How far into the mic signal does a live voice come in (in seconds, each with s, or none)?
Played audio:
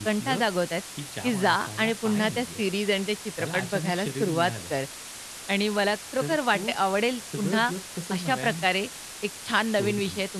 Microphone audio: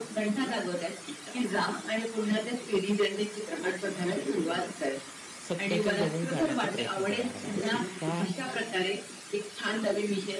5.5 s